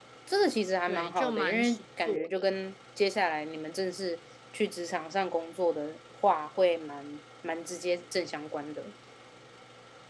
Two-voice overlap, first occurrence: 0.9 s

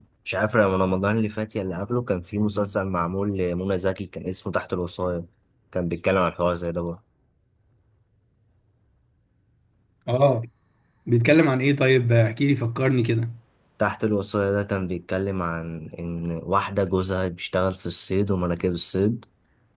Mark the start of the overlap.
none

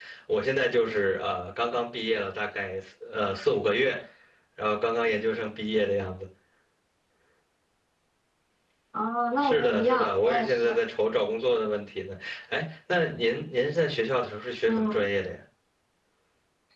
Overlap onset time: 9.4 s

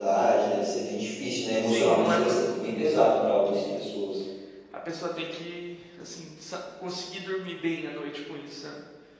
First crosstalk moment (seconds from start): 1.6 s

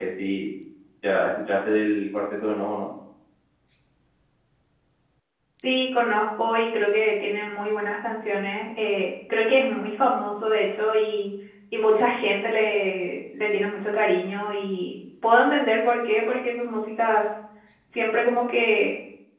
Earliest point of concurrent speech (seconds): none

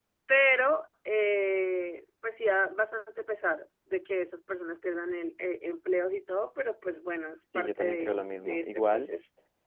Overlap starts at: 7.5 s

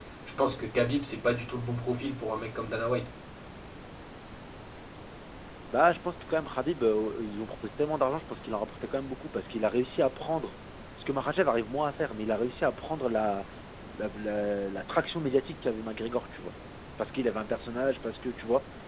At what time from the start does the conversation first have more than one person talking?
none

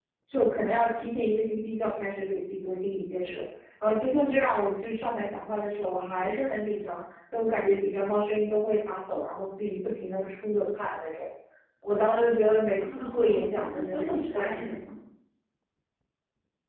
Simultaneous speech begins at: 12.8 s

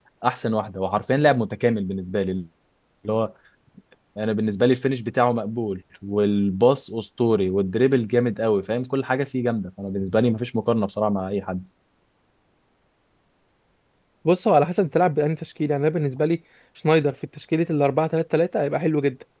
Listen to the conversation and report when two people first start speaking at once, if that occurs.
none

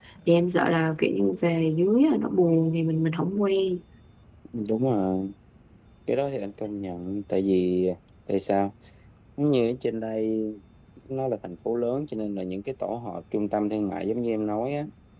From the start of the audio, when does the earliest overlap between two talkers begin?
none

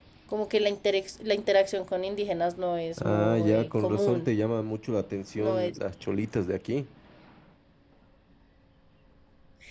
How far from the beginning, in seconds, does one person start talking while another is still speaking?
3.0 s

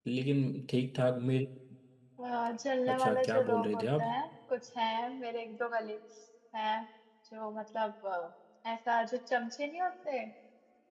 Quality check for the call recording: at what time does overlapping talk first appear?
2.9 s

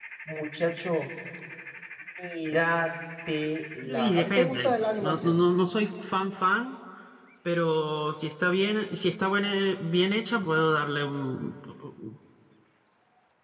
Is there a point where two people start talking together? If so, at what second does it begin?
3.9 s

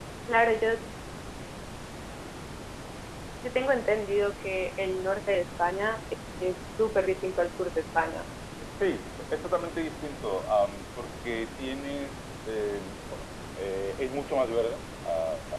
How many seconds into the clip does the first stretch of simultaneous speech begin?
none

